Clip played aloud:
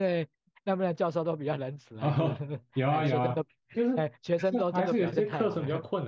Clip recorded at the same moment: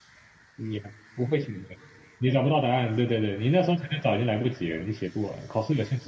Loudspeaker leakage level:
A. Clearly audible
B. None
B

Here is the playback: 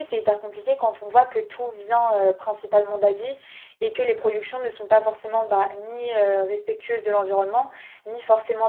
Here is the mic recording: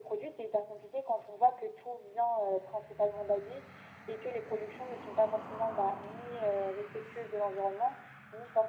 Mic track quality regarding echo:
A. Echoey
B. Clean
A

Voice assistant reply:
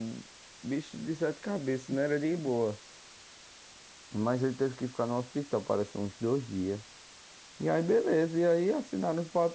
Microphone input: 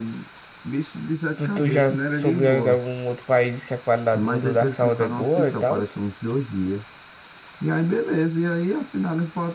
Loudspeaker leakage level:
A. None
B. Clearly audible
B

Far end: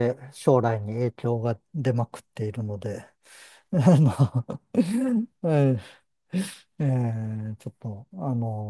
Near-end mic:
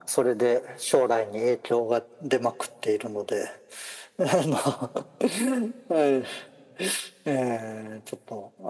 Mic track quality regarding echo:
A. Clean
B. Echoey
B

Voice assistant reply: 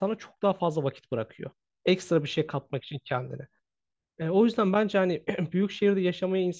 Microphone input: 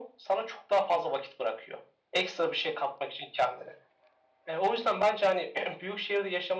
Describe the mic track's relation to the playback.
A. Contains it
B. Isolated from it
A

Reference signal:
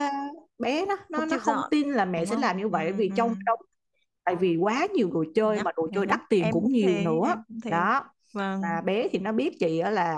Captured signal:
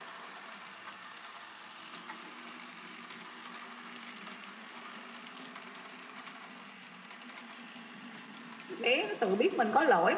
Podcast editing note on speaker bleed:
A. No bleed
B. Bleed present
A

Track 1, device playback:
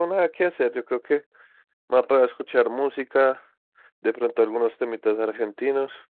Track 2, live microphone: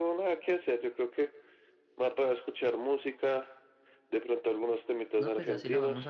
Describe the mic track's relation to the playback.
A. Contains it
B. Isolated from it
A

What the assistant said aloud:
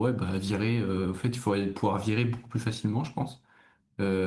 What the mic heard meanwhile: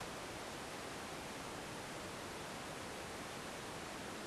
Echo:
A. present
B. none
B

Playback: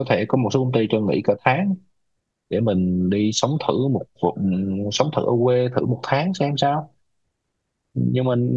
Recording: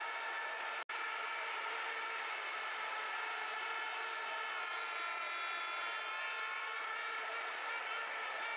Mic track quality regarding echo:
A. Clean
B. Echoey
A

